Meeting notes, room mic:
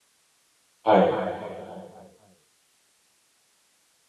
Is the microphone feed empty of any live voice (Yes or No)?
No